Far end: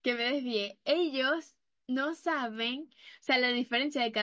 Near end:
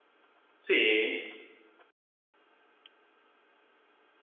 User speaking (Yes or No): Yes